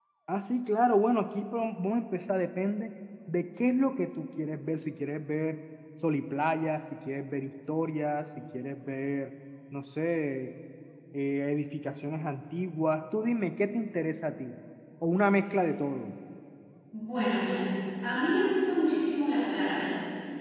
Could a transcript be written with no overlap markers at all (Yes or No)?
Yes